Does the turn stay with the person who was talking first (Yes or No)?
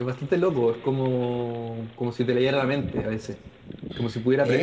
Yes